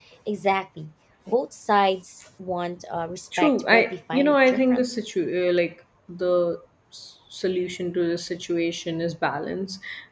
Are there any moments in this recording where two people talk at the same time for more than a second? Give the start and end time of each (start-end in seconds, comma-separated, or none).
3.4-4.9